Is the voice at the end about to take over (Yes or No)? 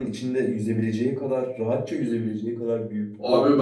Yes